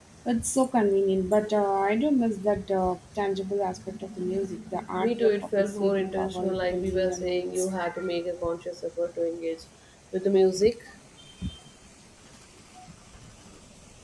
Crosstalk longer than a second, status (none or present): present